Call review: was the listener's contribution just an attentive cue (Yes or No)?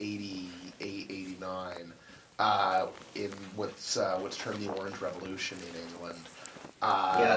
No